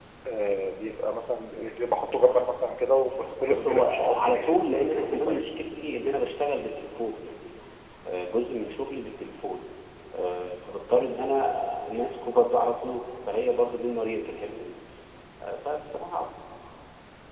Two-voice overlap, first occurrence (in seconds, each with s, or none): 3.4 s